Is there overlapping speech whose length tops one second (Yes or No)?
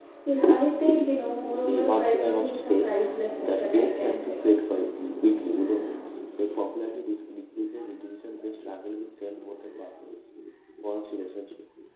Yes